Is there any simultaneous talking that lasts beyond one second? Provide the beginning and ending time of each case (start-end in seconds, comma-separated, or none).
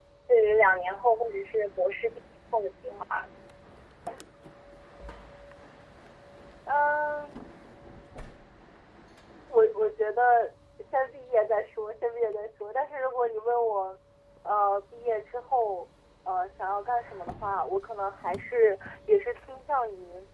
none